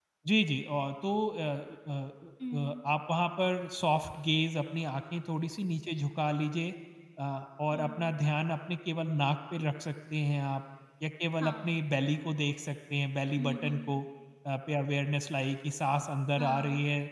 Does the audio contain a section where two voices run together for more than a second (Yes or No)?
No